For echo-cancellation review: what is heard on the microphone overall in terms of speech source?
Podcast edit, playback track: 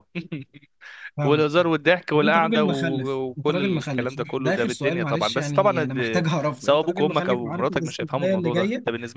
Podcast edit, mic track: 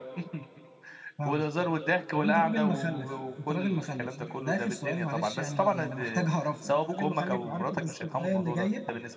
echo only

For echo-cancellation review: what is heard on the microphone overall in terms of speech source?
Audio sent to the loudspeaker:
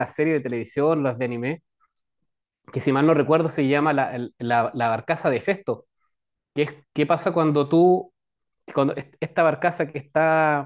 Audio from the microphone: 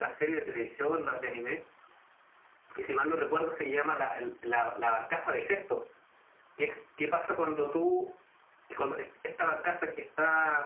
echo only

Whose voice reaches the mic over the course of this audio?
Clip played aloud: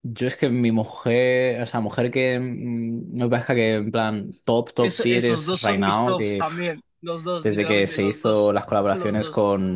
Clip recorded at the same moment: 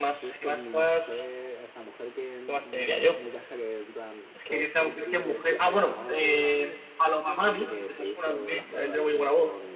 both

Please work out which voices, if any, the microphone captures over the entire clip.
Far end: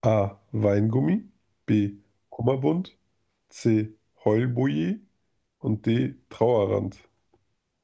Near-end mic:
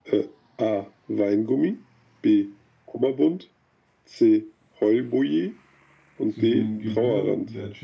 both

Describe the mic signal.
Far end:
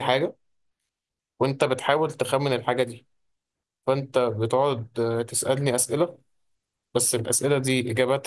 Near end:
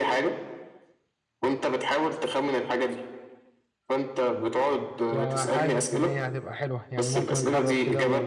both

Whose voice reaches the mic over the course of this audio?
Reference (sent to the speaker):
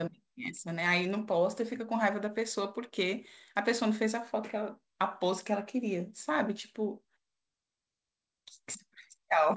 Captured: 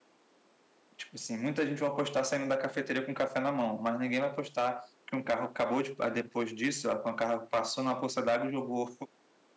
user only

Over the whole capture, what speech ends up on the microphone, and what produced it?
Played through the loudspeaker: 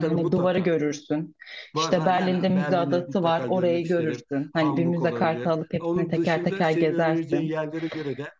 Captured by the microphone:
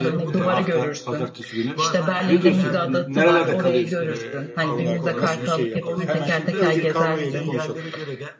both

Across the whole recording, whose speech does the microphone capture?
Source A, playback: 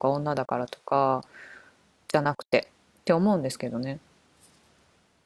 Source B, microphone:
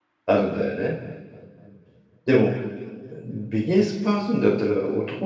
user only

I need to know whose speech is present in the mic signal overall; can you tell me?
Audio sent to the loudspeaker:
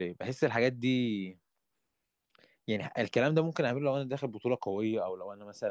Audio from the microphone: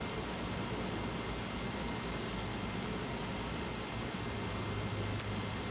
neither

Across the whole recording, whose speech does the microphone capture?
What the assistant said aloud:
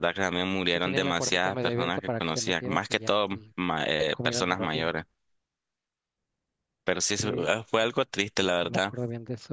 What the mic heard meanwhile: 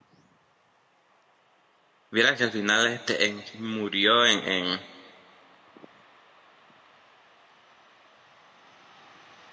user only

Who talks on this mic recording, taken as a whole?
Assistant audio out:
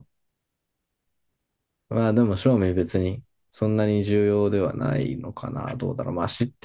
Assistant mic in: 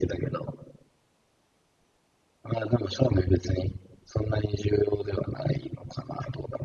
echo only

